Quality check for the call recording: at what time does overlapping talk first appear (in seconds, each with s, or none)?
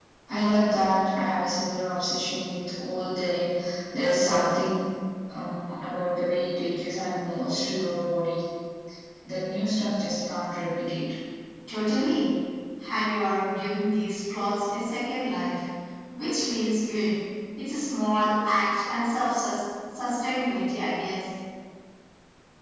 none